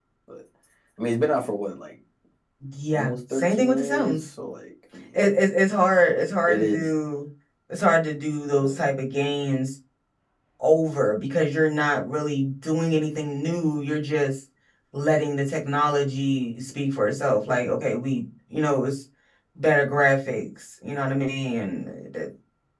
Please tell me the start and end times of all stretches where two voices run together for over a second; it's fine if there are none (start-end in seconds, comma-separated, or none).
2.9-4.2